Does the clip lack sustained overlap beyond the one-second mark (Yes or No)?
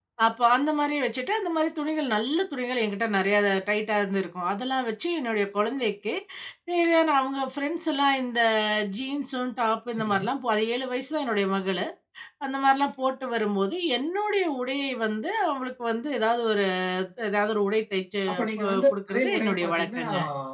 No